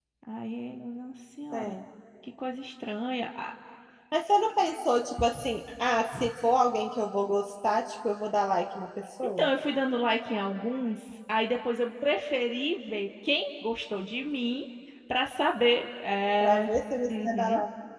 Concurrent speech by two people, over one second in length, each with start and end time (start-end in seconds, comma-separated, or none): none